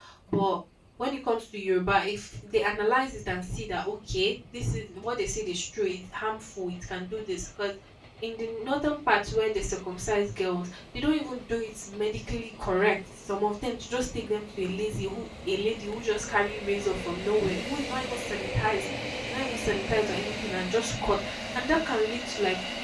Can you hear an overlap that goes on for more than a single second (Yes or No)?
No